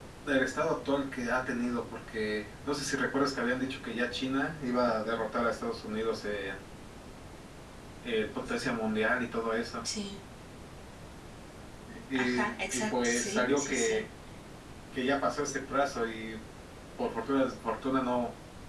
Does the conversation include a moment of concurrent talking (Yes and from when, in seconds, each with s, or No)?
Yes, from 12.2 s